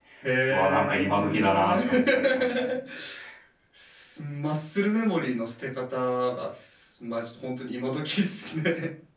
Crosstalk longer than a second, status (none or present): present